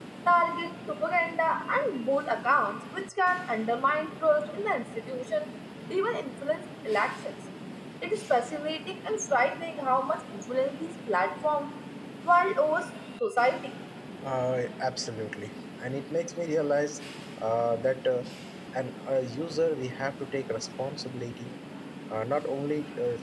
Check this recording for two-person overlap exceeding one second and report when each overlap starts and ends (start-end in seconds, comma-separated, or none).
none